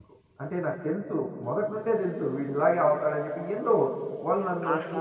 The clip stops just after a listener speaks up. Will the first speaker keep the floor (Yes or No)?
No